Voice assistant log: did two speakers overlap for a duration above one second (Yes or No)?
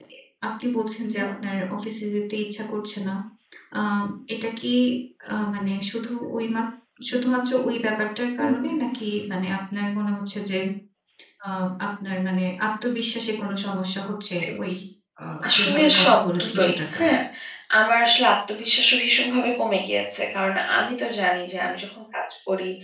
Yes